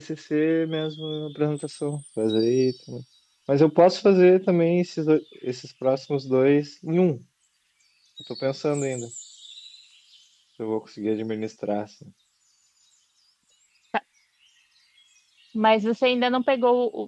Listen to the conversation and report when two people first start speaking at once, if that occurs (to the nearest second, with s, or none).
none